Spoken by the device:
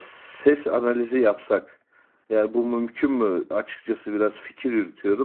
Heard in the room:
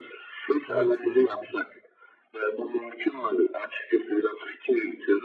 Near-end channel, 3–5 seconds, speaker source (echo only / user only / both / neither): echo only